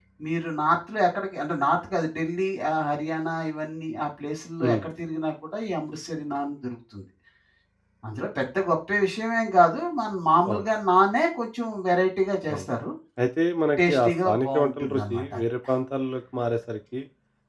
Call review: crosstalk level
present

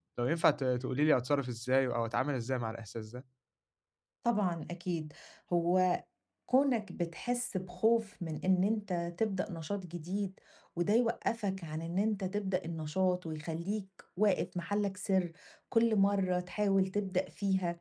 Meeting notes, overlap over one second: none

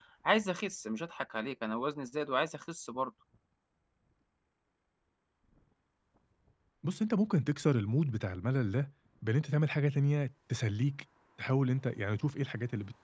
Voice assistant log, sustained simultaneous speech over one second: none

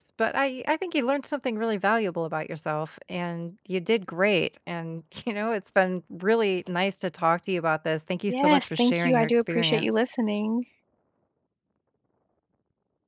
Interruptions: present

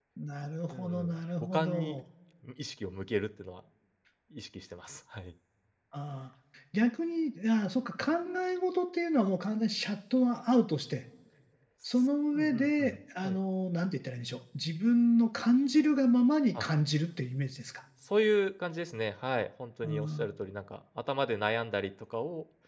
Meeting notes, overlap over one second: present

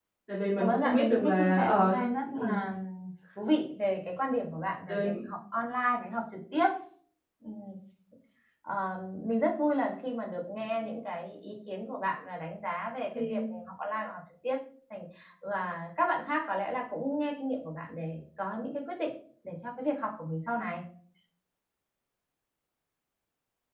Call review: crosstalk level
present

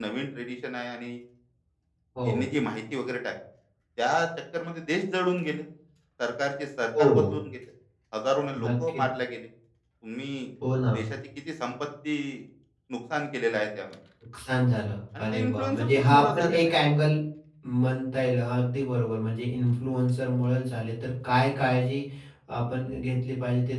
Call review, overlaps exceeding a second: present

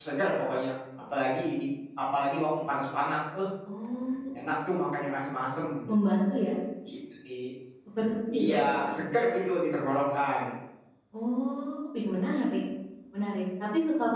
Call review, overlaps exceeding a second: none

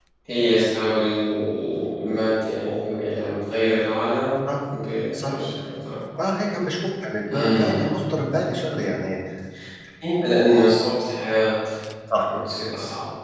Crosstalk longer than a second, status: none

